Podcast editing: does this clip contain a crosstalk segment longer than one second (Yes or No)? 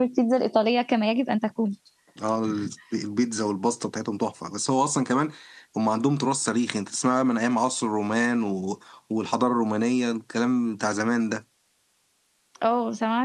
No